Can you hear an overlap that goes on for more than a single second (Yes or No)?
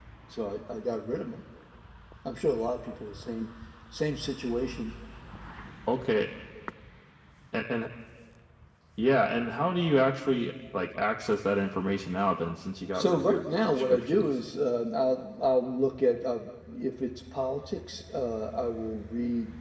Yes